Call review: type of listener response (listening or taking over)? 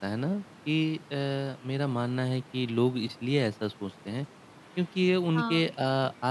listening